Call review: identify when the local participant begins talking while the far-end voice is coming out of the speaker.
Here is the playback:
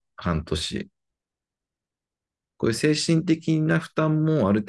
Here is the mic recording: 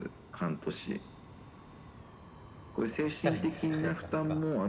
2.9 s

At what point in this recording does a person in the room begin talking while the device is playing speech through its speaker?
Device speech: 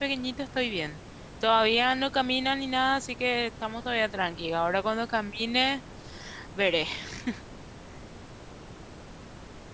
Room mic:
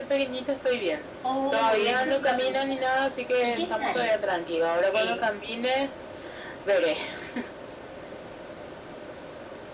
1.2 s

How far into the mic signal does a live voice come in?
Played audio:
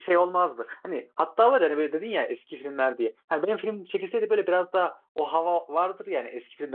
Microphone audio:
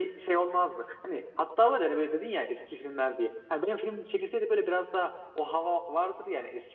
none

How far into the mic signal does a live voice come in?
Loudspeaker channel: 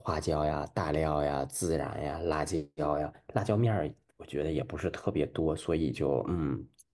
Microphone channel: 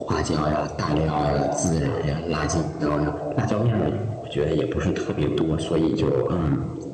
none

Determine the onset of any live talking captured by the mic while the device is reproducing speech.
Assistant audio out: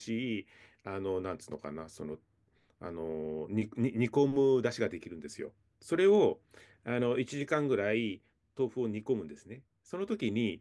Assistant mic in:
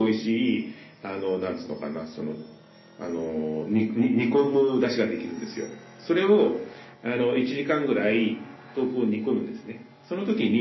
none

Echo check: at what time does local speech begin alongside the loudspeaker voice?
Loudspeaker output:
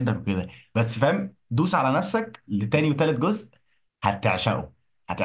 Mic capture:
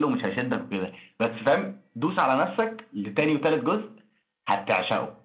none

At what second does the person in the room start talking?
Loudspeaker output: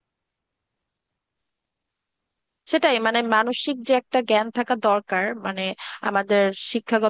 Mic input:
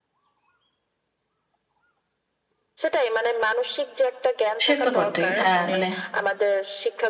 4.6 s

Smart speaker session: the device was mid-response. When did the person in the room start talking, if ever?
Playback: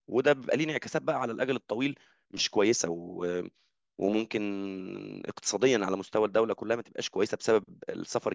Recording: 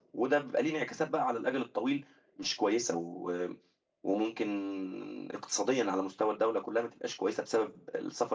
none

